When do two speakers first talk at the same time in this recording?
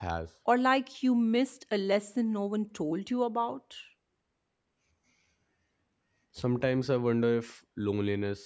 none

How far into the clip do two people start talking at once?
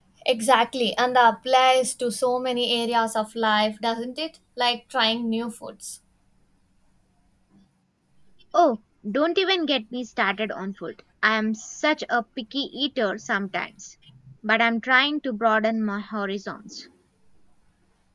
none

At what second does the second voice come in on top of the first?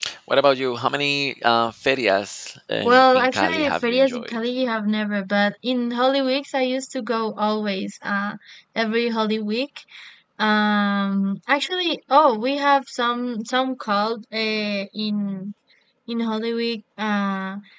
2.8 s

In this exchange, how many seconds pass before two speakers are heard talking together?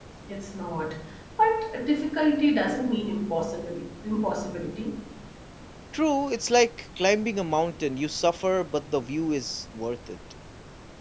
none

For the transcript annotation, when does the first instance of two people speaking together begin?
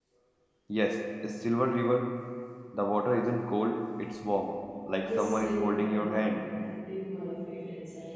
5.0 s

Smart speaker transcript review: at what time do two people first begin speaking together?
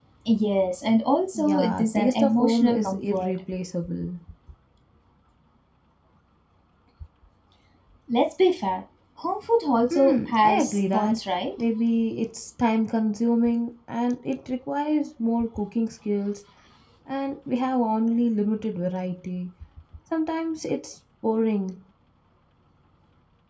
1.4 s

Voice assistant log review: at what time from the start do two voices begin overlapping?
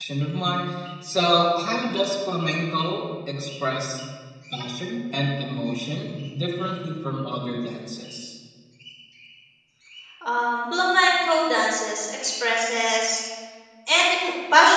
none

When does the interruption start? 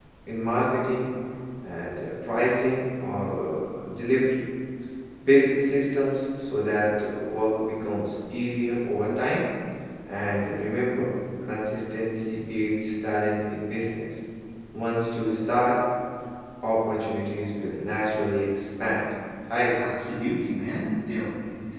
none

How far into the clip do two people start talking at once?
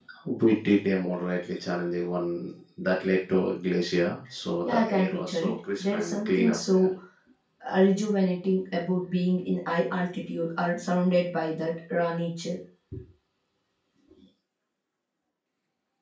4.6 s

